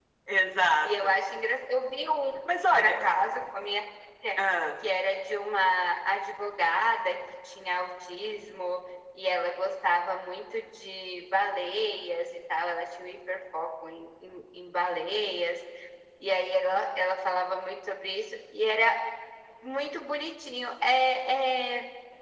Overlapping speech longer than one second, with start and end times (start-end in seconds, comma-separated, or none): none